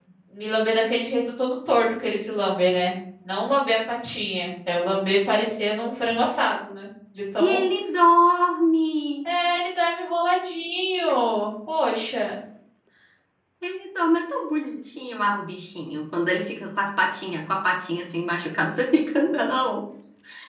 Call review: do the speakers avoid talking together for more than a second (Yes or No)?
Yes